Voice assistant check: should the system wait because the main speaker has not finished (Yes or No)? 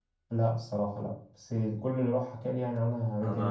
No